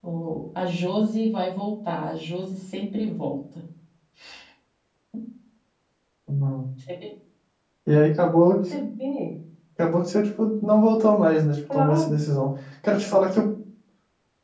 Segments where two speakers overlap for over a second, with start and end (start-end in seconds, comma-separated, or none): none